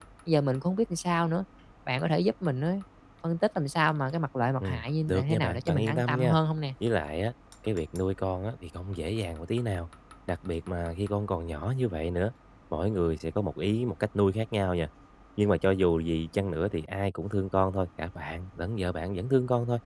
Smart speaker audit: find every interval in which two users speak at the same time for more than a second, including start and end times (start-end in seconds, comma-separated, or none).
4.6-6.4